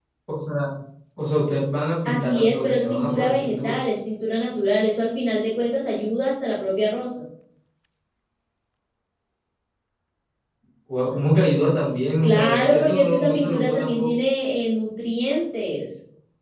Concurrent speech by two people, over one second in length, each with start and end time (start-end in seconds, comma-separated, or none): 2.0-3.8, 12.2-14.1